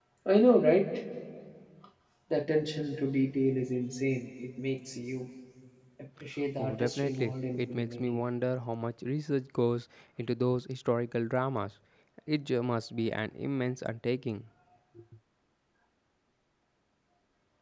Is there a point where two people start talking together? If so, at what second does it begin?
6.6 s

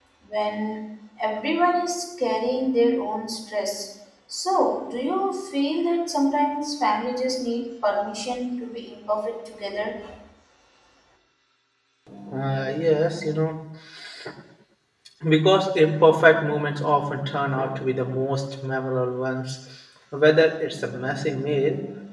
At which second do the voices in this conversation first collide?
none

